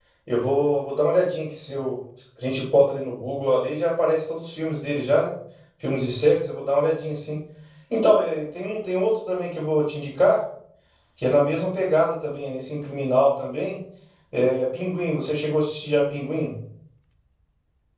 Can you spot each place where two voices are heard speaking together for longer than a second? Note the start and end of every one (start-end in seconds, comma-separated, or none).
none